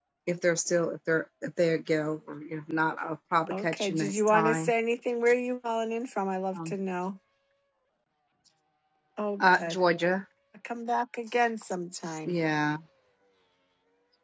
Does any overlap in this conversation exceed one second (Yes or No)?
Yes